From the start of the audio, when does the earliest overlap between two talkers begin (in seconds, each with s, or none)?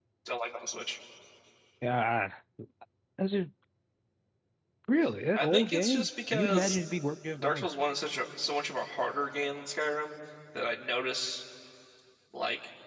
5.4 s